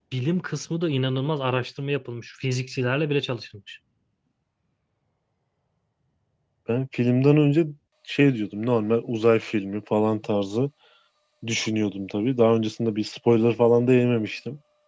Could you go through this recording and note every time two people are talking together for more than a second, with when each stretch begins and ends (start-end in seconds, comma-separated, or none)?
none